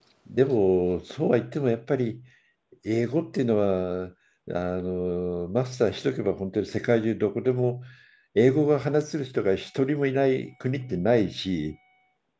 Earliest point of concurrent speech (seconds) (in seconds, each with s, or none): none